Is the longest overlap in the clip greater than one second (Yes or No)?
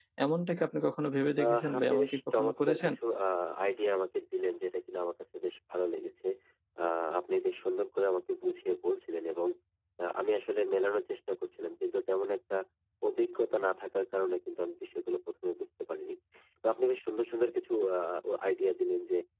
Yes